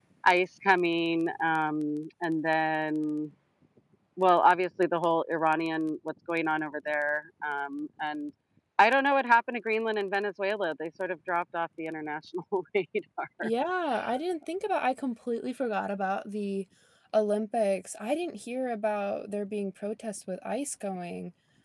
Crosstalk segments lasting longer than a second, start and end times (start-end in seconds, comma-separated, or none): none